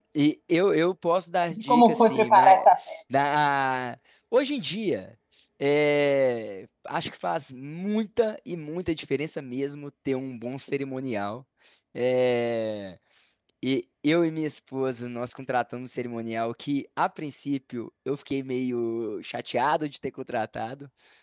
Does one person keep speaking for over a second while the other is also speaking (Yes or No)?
Yes